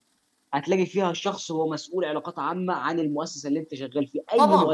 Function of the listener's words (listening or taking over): taking over